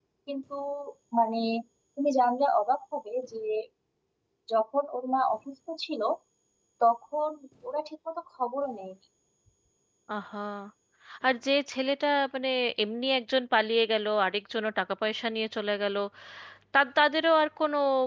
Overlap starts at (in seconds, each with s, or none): none